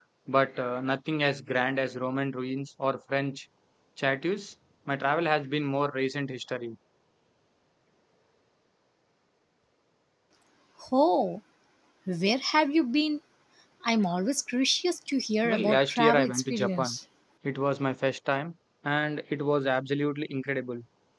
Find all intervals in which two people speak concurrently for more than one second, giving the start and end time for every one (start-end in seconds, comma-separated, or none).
15.4-17.0